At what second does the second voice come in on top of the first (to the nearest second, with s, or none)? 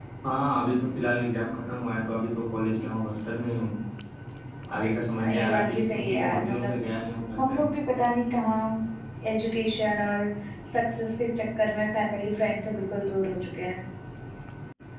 5 s